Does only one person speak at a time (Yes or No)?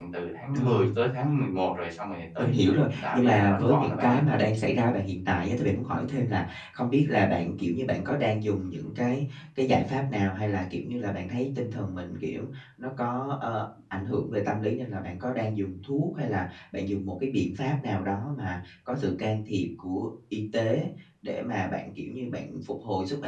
No